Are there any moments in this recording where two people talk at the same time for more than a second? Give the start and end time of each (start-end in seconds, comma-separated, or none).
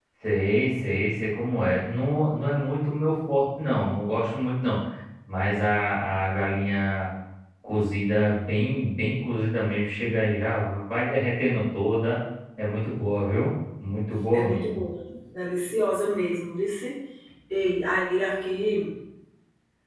none